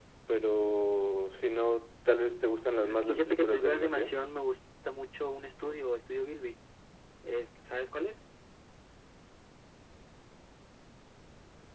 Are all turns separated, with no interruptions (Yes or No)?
No